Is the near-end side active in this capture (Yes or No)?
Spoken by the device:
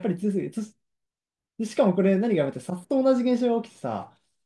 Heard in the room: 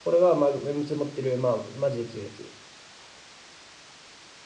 Yes